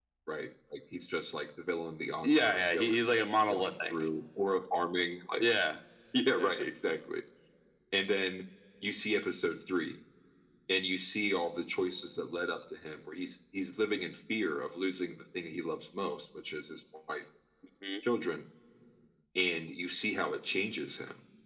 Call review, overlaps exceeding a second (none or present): present